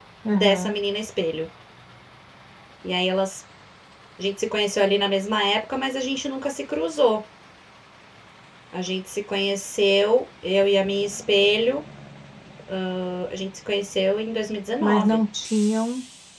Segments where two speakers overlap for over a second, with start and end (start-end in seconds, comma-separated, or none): none